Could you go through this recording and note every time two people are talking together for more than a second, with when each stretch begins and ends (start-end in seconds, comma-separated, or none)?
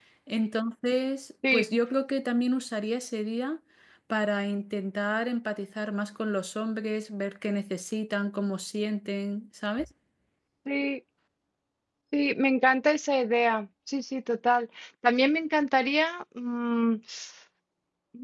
none